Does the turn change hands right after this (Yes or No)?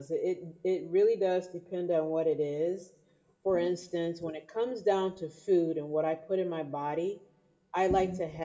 No